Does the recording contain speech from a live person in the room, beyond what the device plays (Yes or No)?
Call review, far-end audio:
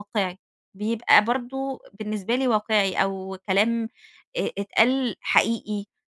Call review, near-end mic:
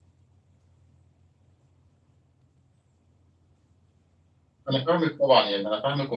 Yes